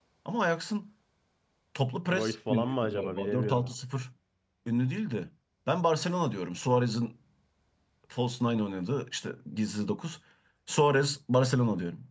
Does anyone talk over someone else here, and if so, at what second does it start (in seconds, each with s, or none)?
2.1 s